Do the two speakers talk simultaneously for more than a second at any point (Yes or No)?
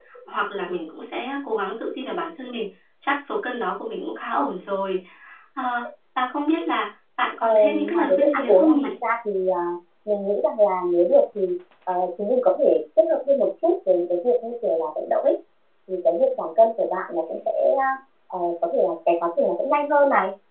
Yes